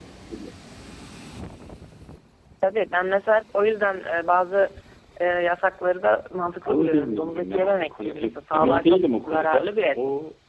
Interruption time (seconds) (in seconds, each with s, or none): 6.7 s